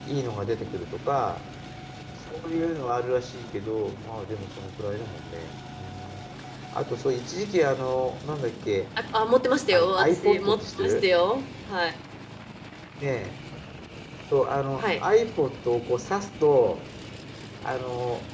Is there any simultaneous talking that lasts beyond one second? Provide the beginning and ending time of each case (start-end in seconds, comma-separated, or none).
9.7-11.0